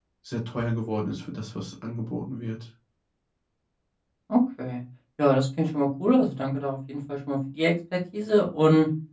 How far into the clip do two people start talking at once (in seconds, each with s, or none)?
none